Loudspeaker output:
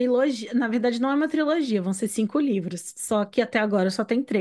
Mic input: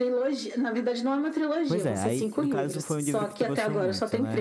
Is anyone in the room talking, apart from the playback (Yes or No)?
Yes